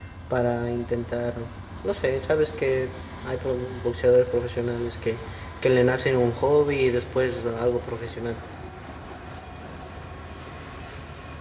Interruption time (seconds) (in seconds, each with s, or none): none